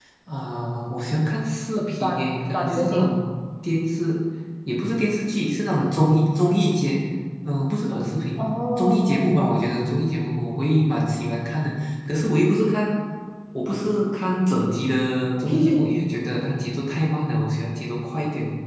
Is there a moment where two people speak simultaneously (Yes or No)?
Yes